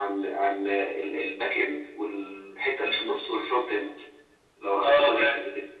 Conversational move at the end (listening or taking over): listening